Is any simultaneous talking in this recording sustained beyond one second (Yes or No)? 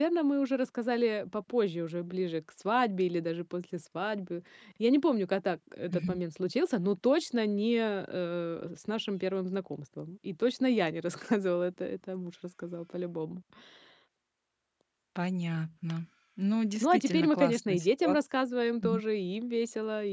Yes